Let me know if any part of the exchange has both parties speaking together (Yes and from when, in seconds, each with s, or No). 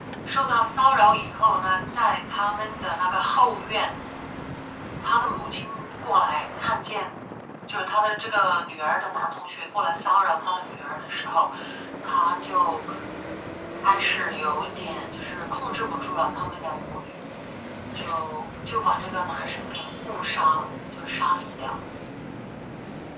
No